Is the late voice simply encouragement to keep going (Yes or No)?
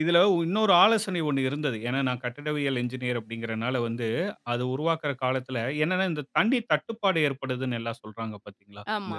Yes